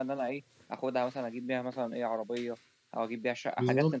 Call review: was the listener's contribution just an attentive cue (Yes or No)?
No